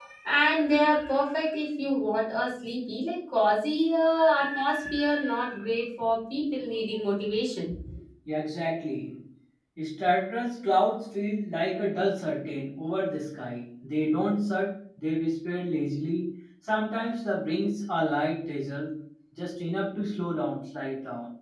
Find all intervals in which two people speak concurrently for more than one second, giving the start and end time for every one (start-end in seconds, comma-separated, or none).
none